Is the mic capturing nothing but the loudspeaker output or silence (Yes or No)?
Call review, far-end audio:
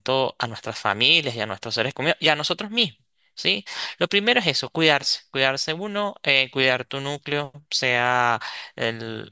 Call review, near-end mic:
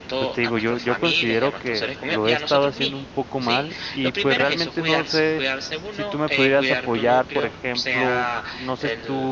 No